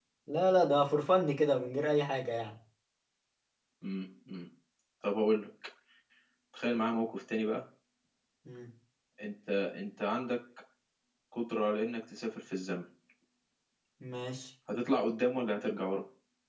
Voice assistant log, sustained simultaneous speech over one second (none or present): none